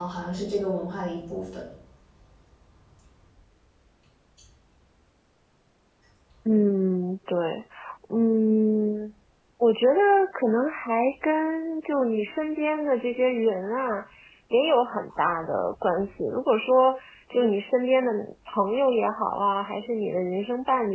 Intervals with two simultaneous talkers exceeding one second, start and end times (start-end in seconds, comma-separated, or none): none